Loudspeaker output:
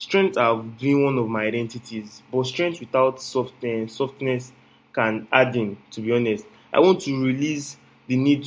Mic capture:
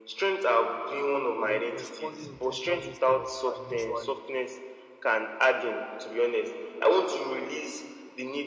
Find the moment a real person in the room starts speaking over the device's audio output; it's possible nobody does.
1 s

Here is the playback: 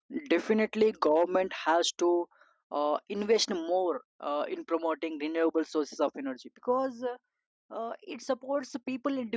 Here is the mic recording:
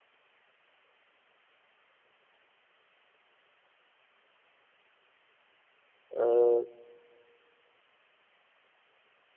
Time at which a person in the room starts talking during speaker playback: 6 s

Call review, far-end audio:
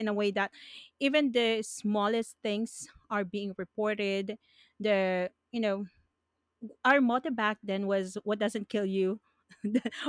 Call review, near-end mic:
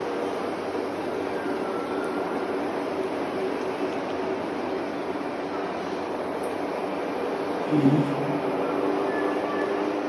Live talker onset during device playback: 8 s

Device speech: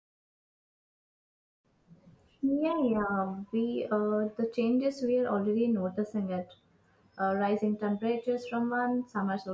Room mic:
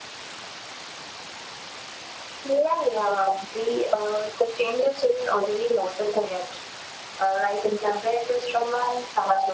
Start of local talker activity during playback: none

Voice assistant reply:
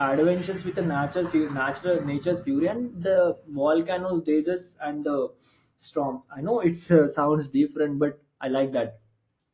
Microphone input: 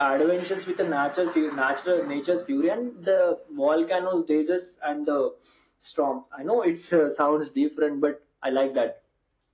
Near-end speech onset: none

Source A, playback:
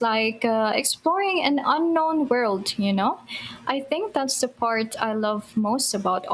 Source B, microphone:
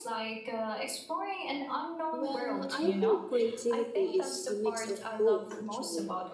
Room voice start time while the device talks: 2 s

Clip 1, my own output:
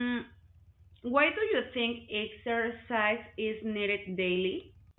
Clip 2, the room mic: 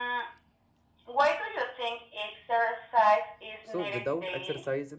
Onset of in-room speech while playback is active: 4 s

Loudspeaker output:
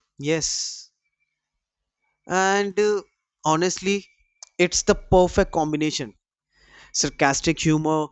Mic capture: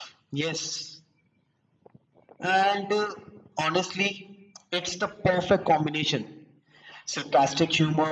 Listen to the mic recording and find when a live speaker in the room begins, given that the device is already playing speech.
none

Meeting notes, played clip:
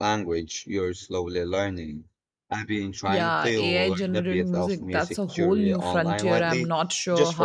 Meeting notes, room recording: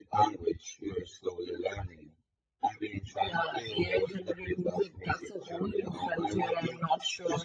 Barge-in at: none

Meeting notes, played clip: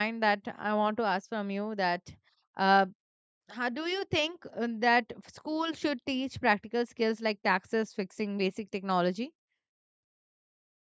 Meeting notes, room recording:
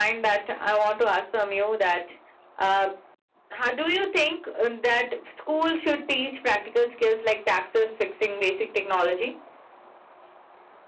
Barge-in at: none

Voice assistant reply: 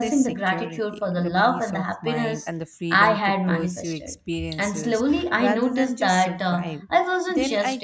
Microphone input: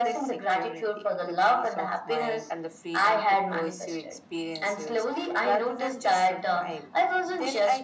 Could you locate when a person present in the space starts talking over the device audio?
none

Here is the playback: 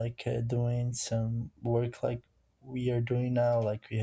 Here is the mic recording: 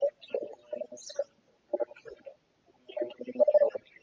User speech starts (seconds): none

